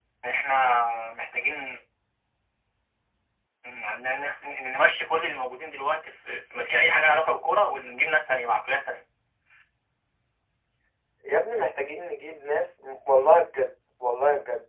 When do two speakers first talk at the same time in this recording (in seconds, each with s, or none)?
none